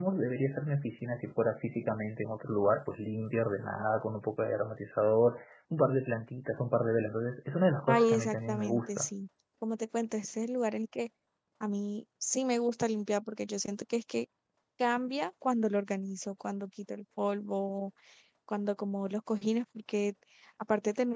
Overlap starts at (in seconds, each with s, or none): 7.9 s